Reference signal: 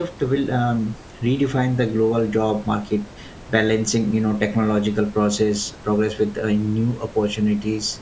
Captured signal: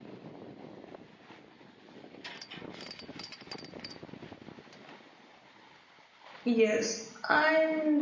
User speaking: Yes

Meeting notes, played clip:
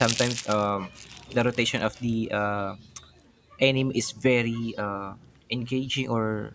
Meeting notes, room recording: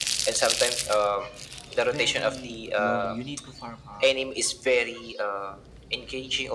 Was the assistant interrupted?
Yes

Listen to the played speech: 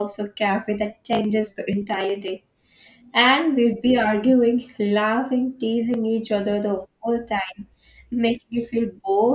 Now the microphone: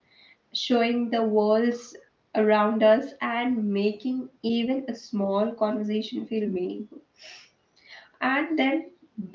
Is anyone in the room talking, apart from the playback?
Yes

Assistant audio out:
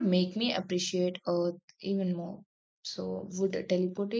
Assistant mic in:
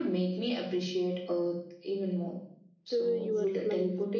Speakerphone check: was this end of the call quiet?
No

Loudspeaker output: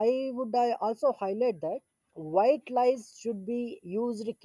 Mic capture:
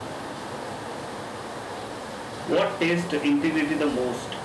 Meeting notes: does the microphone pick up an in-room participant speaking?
Yes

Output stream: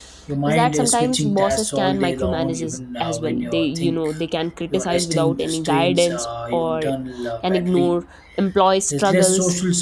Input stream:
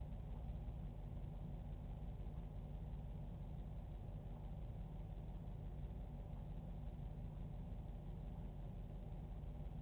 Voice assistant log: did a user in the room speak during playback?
No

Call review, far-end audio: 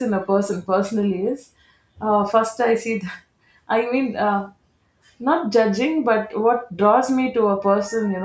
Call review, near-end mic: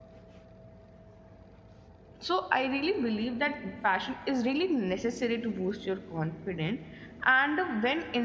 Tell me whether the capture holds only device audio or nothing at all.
No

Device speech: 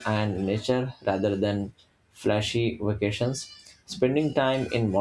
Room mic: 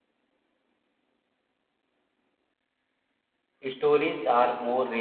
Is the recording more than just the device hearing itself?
Yes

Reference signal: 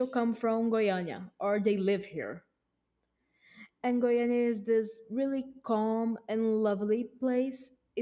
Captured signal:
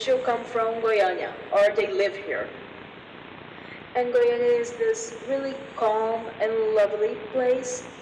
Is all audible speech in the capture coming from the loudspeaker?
Yes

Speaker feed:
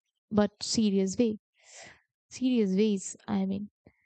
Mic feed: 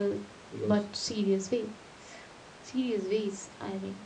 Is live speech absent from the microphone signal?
No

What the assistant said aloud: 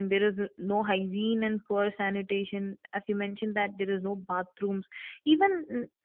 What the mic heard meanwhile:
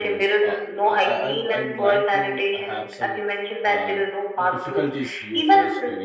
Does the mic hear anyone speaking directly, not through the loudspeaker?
Yes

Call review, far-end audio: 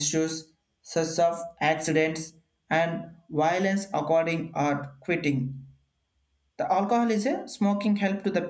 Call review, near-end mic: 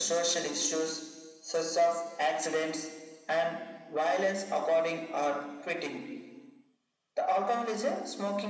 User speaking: No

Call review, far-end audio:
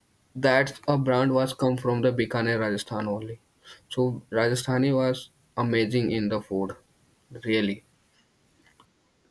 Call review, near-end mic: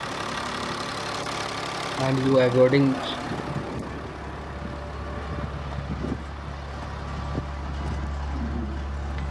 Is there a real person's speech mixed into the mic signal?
Yes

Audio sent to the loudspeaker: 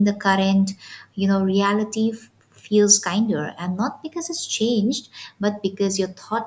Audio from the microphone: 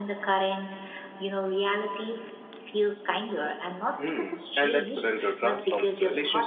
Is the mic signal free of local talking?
No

